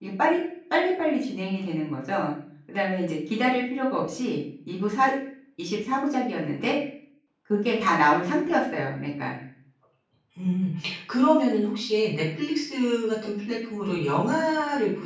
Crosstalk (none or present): none